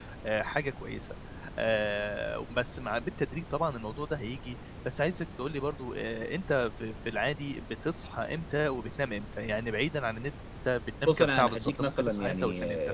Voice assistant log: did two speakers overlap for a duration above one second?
Yes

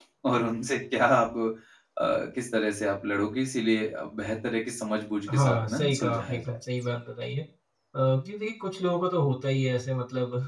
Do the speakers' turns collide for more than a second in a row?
Yes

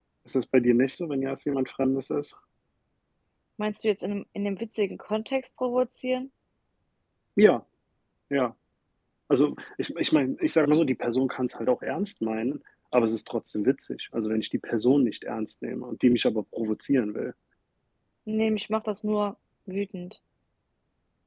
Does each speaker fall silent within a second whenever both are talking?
Yes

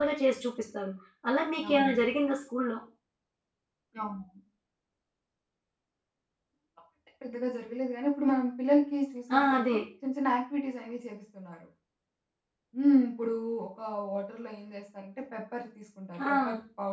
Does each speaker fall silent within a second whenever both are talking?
Yes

